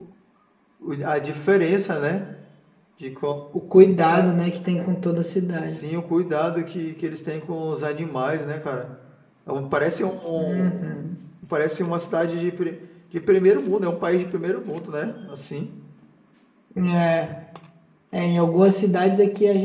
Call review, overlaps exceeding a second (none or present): none